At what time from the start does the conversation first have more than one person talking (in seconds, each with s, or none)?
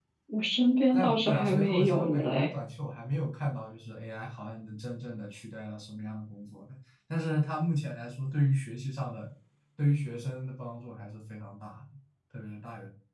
0.9 s